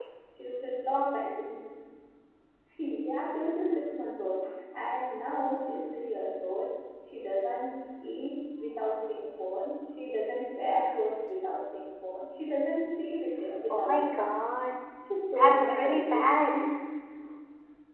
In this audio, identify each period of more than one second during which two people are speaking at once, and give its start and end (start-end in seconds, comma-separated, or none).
15.3-16.7